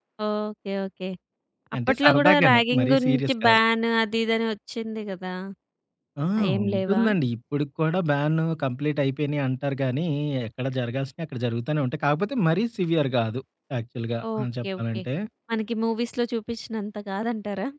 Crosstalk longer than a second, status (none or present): present